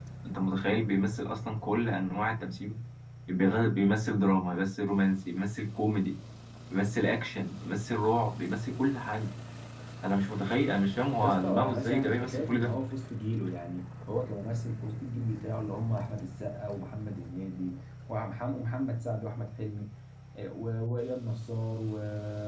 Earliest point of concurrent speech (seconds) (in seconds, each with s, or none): 11.2 s